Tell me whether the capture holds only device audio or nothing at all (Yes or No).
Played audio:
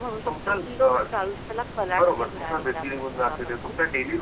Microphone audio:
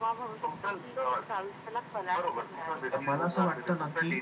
No